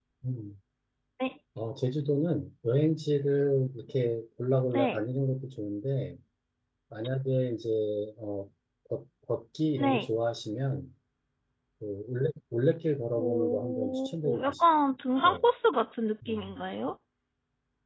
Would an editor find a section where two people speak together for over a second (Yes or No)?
Yes